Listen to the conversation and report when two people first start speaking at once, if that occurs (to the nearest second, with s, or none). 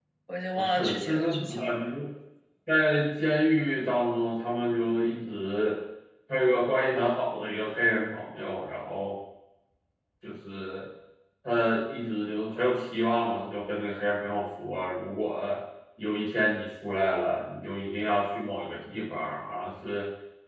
1 s